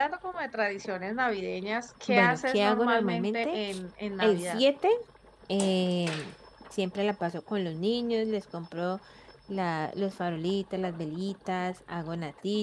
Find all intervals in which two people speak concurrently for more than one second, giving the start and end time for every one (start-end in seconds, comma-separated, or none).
2.1-3.6